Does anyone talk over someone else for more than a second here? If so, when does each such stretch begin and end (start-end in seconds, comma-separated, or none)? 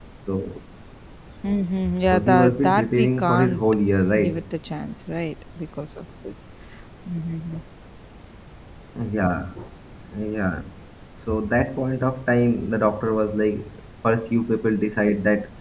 2.1-3.6